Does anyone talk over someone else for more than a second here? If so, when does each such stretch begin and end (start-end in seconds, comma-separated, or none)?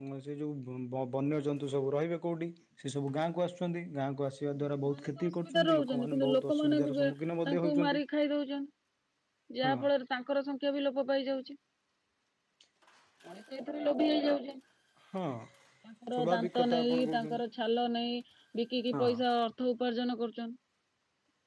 4.8-7.0, 16.1-17.4